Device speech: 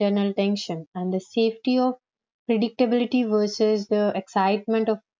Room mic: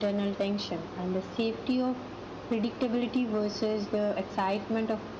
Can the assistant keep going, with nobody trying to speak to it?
Yes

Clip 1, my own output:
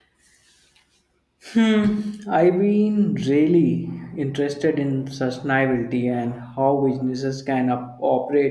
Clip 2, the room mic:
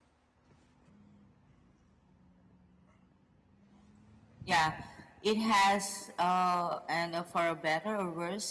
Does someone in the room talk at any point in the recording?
Yes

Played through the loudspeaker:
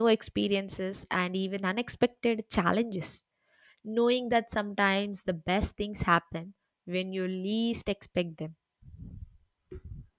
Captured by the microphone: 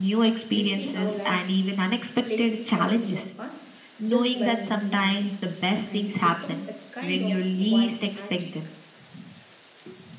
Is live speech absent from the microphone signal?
No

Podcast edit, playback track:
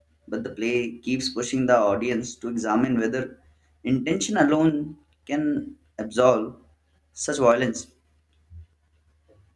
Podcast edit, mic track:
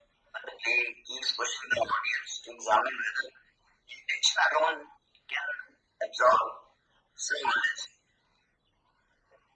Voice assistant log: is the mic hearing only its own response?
Yes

